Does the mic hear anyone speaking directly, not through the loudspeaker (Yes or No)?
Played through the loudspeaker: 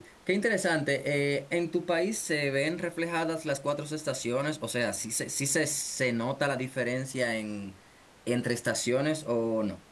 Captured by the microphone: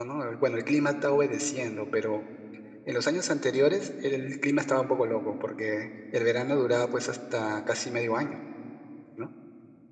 Yes